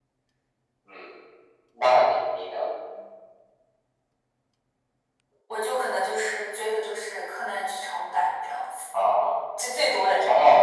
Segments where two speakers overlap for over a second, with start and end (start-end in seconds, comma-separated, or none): none